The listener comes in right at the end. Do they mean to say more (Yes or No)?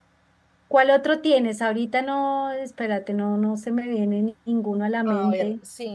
Yes